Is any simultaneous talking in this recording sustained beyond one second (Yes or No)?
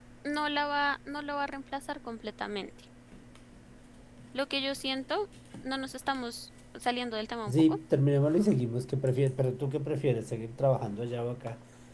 No